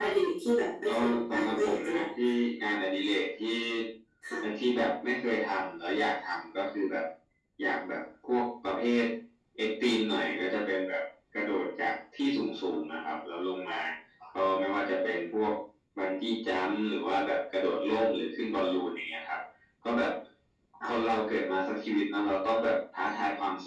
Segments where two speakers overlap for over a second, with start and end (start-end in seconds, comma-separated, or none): 0.8-2.1